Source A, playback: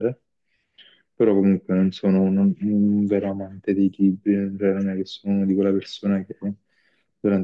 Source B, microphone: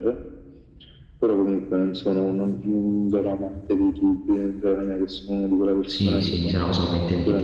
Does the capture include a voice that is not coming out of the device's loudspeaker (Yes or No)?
Yes